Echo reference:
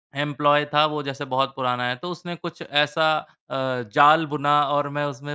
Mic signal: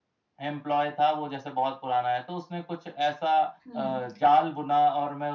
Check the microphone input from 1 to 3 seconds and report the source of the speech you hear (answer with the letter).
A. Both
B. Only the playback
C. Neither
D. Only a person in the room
B